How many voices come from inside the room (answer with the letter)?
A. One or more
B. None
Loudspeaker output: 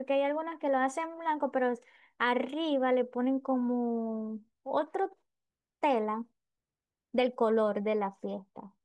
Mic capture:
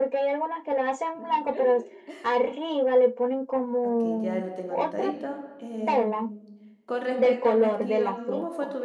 A